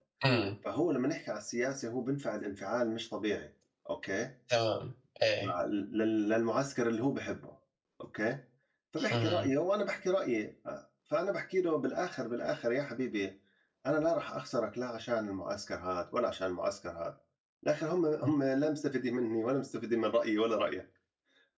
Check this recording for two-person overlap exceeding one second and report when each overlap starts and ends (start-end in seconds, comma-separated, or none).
none